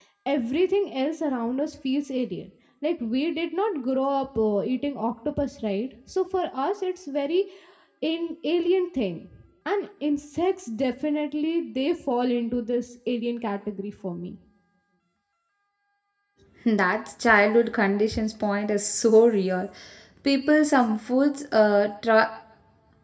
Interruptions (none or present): none